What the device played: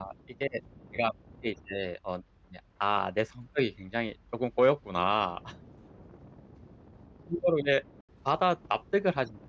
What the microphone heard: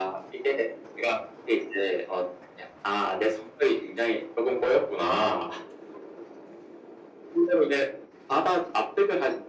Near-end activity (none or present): none